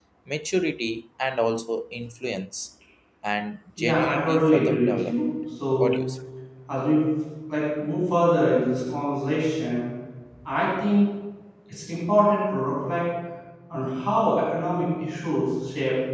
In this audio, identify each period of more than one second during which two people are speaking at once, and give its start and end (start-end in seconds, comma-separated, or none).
3.8-5.2